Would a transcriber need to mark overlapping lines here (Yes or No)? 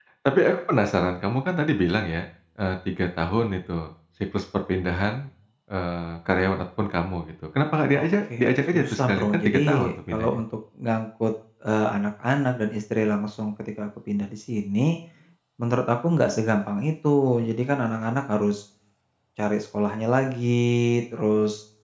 Yes